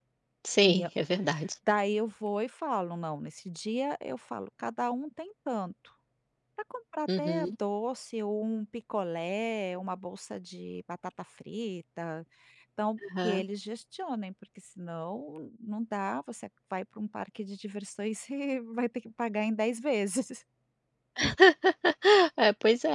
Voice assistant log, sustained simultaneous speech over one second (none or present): none